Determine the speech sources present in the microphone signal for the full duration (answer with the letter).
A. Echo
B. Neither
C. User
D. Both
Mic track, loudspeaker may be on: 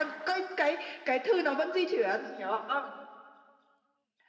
A